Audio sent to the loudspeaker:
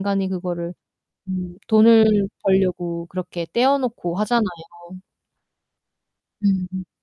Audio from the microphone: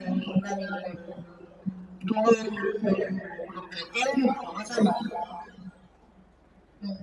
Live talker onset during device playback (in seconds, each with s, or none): none